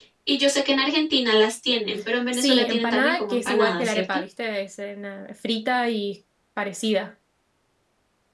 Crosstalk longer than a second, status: present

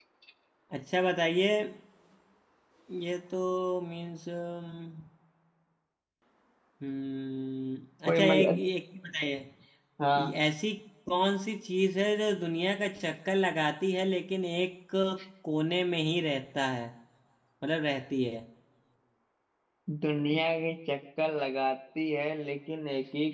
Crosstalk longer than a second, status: none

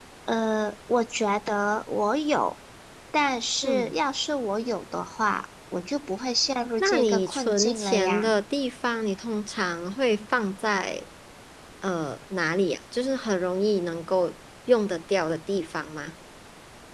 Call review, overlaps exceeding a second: present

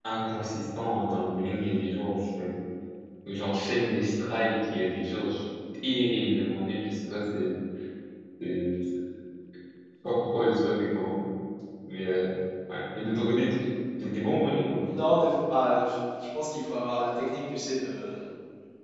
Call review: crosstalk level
none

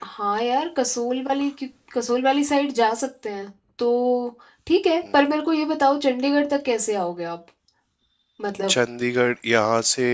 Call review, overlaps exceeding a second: none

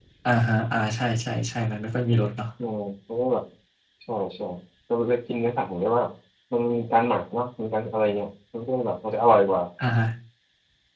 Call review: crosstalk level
none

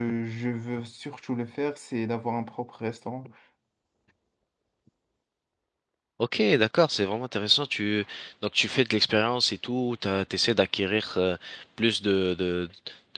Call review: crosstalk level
none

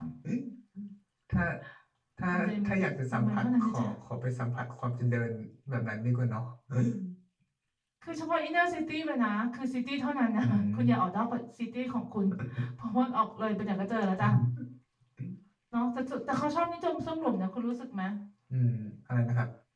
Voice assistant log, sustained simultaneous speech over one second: present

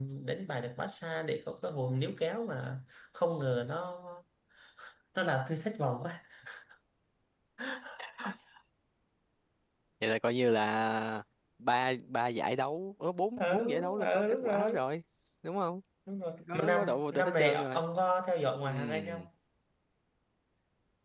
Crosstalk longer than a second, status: present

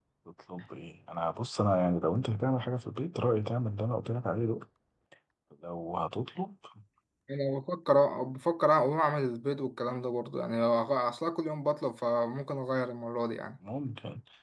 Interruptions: none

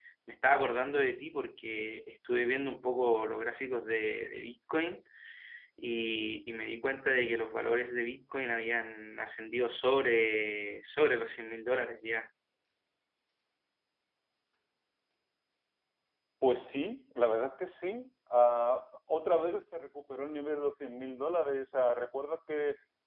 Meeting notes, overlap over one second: none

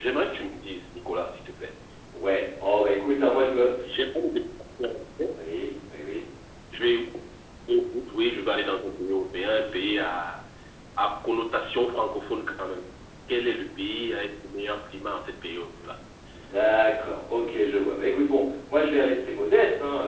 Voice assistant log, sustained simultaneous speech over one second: none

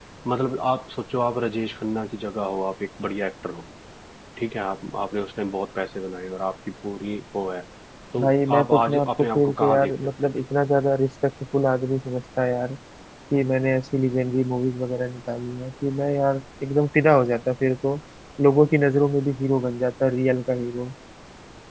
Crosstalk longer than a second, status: present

